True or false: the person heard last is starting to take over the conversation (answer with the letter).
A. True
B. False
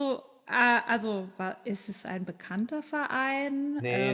A